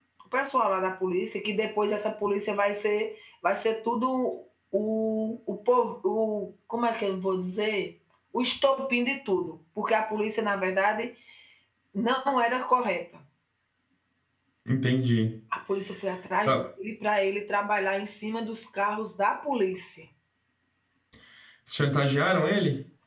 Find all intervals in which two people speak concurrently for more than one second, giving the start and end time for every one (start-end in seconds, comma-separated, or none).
none